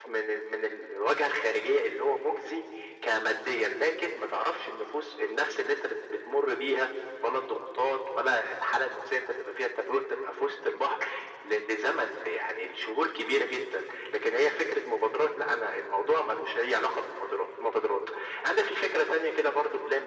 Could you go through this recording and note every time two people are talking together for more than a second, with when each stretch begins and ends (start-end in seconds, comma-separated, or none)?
none